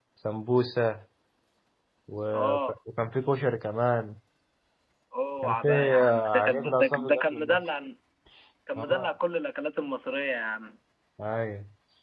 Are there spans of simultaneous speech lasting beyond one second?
Yes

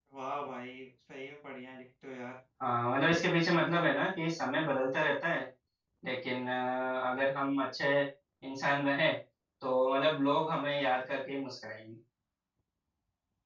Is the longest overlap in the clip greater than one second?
No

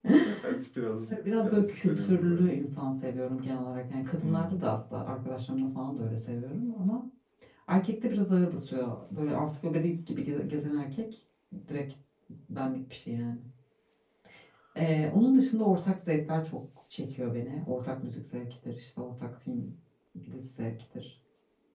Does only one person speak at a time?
No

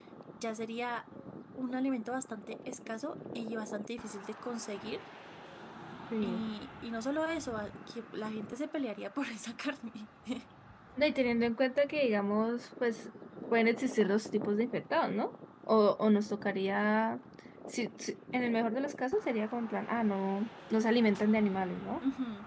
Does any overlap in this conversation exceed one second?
No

